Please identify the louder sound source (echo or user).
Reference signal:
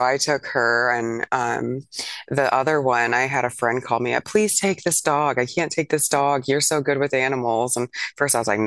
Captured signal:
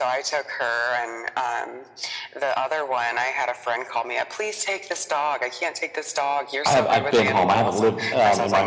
user